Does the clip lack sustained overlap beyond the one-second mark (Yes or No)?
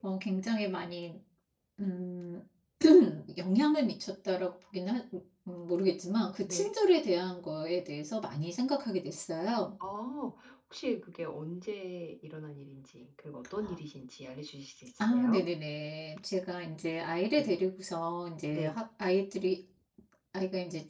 Yes